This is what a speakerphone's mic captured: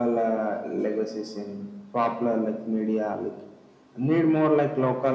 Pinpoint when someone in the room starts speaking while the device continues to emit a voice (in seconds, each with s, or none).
none